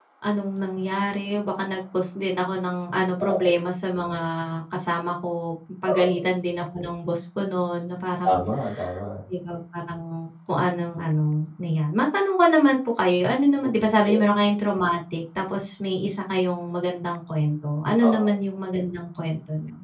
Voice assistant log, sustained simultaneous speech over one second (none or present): none